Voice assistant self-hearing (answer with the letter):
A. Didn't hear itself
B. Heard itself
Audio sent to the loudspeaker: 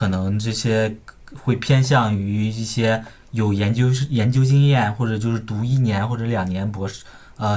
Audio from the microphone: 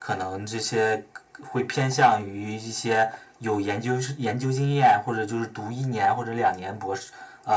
B